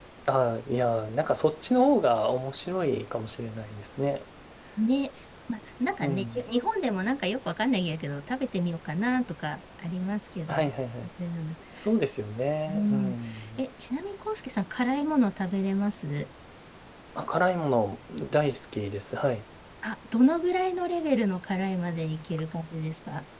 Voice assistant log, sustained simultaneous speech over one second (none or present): none